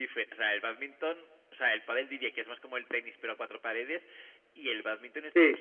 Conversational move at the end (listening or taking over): listening